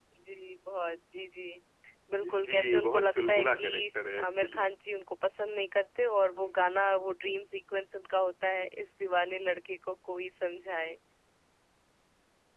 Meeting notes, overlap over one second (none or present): present